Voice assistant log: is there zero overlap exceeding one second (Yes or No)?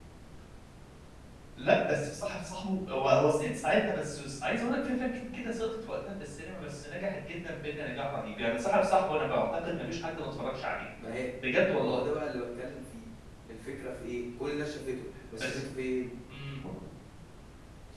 Yes